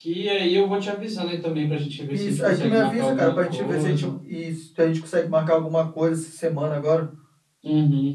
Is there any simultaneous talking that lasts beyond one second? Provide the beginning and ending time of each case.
2.1-4.1

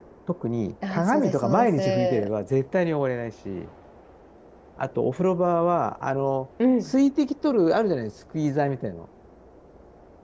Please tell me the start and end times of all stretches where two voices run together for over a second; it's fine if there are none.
0.9-2.3

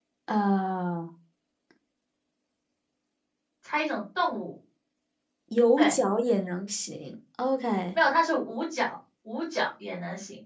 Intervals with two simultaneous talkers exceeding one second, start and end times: none

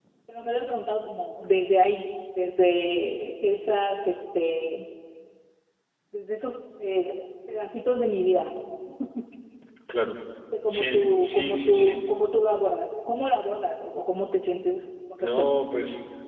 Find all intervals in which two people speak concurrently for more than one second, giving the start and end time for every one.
10.7-12.0

